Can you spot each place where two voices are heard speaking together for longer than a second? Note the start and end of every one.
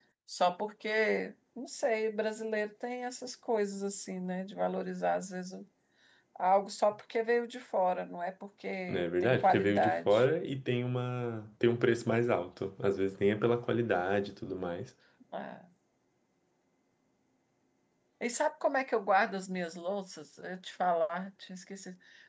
8.9-10.2

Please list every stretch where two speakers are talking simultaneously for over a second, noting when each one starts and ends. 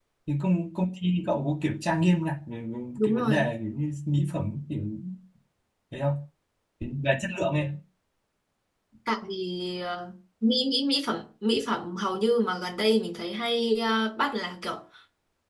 none

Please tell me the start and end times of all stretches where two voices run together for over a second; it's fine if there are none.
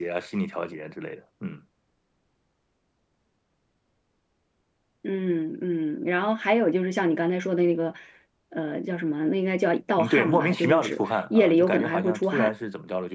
10.0-12.5

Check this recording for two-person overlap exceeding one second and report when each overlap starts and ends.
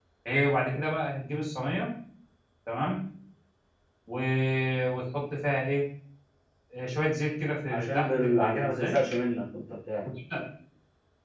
7.7-9.1

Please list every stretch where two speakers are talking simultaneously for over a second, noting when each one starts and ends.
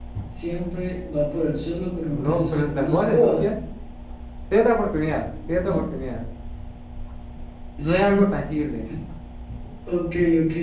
2.1-3.4

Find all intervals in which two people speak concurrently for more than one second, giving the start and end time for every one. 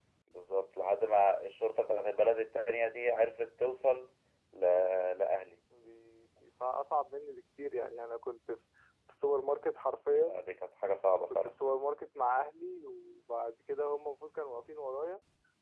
none

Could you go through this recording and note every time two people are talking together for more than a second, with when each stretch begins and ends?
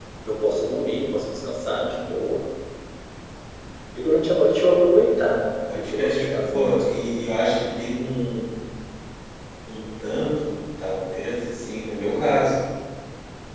5.7-7.0

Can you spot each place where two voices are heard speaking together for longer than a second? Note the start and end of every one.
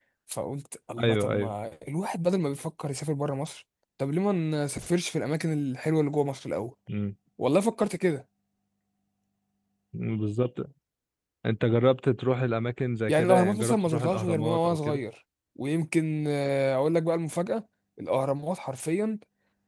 13.1-15.0

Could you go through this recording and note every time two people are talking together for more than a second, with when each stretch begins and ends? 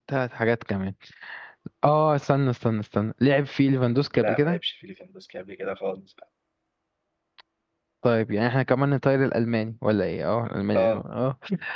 none

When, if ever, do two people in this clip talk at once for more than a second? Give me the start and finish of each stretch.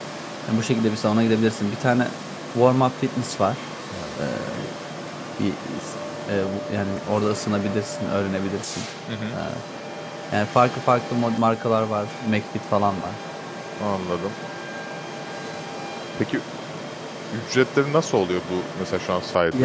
none

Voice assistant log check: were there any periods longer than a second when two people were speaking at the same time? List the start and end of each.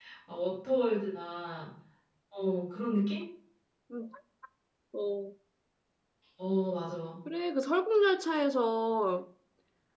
none

